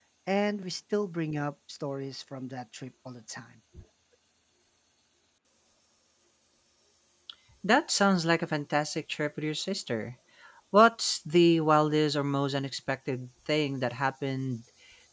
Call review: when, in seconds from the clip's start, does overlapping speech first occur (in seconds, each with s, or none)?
none